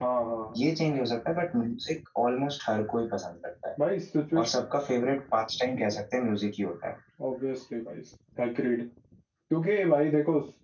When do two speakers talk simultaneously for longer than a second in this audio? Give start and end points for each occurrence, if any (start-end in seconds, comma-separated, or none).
none